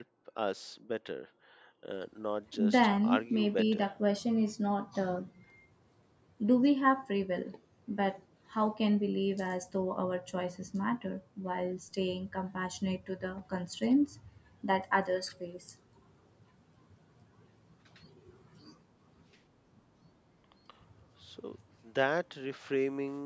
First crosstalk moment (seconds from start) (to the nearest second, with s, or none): 3 s